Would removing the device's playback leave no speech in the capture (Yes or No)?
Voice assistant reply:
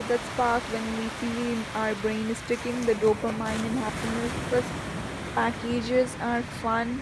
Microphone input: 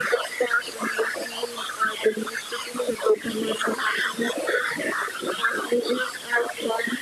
Yes